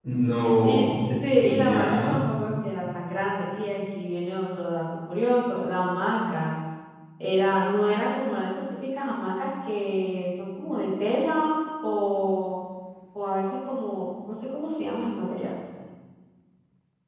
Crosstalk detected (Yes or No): Yes